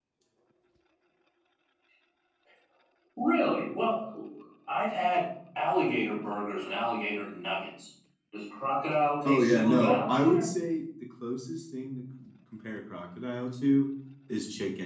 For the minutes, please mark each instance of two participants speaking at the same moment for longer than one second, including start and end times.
9.2-10.5

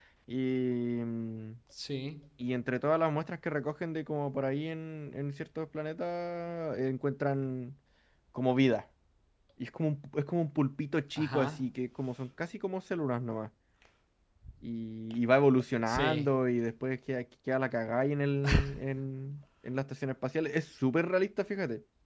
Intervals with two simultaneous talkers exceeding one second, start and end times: none

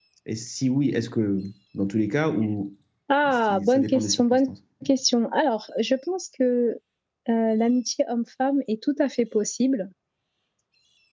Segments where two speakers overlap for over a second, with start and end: 3.3-4.5

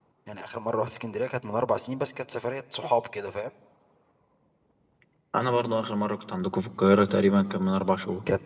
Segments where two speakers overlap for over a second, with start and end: none

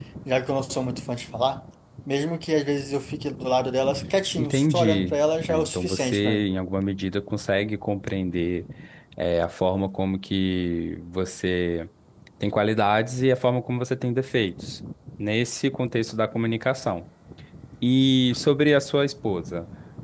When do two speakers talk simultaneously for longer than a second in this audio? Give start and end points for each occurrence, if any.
4.4-6.4

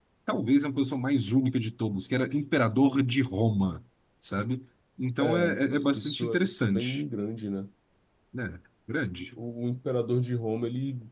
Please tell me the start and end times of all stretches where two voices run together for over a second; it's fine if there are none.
5.2-7.0

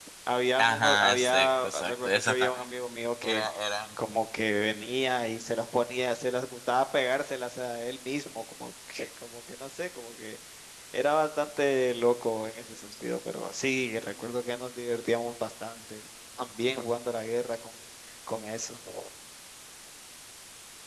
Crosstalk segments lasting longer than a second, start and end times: 0.6-2.6

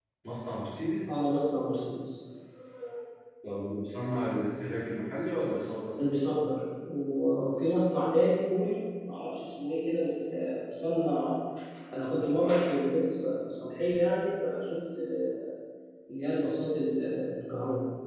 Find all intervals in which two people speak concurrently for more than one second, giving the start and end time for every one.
none

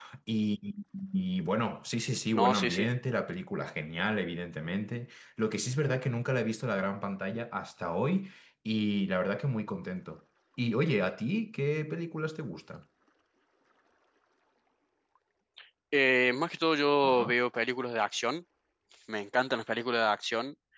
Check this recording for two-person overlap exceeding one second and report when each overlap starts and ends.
none

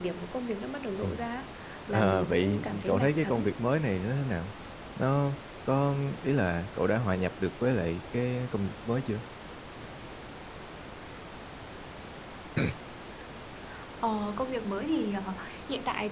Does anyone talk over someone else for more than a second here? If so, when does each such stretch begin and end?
1.9-3.5

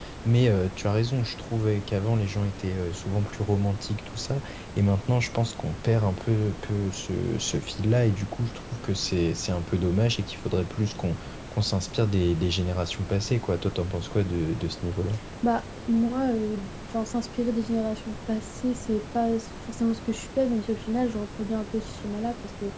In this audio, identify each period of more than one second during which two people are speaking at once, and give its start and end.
none

